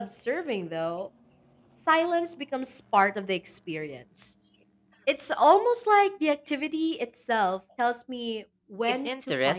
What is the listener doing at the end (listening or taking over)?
taking over